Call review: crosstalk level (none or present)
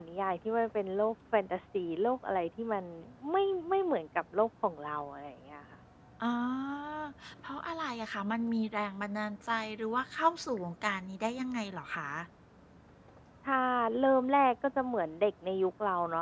none